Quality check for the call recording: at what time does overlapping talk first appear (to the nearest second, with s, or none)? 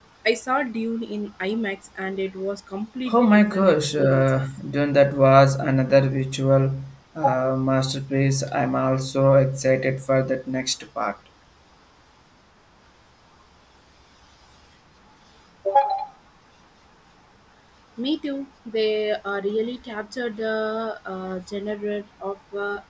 3 s